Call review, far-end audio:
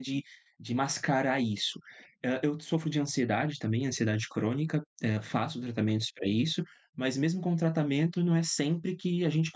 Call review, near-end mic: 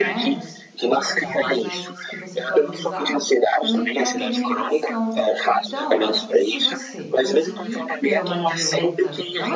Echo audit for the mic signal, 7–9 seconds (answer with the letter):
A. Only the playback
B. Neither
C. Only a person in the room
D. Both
D